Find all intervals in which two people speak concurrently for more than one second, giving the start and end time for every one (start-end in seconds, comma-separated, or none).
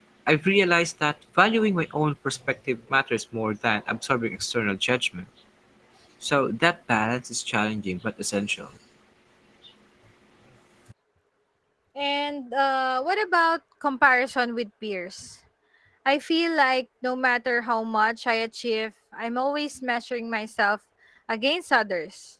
none